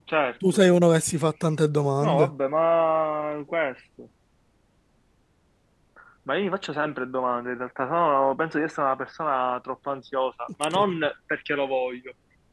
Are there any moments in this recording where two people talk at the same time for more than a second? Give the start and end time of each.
none

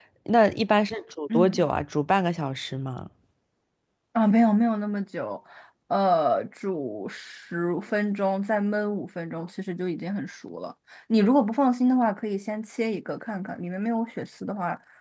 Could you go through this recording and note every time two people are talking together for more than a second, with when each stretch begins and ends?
none

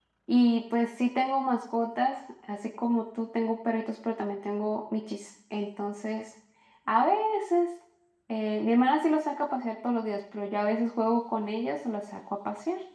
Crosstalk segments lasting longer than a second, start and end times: none

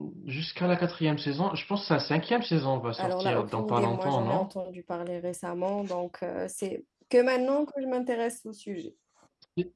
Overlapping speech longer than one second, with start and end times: 3.0-4.5

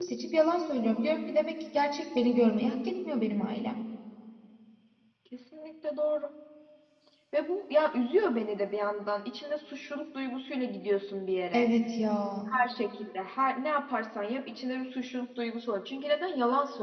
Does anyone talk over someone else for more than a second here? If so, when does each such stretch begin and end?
none

